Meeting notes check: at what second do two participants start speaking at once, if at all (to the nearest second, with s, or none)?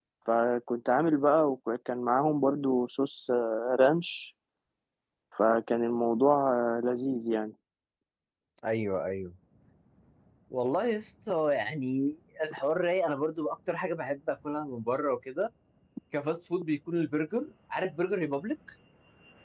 none